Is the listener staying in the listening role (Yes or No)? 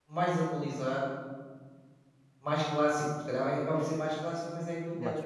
Yes